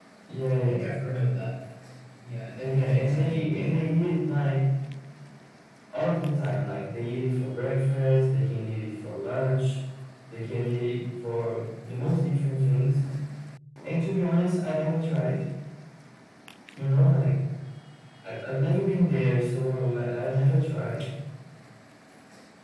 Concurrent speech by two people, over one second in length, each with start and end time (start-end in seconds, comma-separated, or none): 2.6-3.8